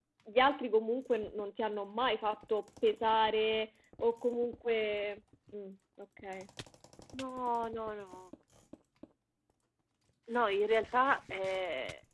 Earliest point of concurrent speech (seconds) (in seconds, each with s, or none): none